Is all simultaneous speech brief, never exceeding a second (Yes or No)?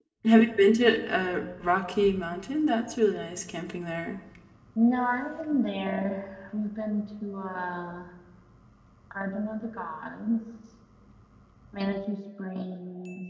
Yes